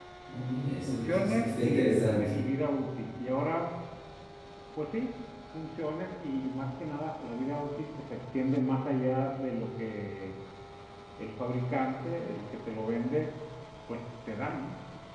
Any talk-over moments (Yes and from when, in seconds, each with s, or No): Yes, from 0.9 s